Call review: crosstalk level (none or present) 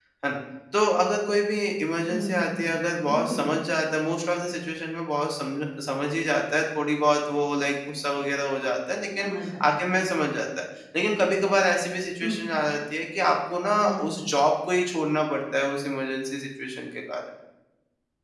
present